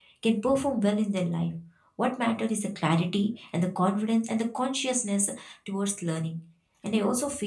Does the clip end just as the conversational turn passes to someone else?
No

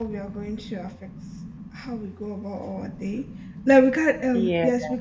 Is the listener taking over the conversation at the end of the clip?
No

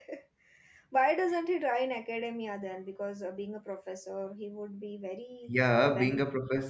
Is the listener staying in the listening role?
No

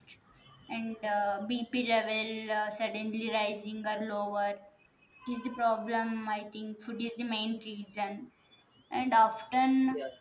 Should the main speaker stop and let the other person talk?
No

